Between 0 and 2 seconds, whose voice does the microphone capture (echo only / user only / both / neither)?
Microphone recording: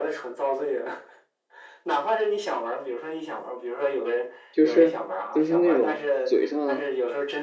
echo only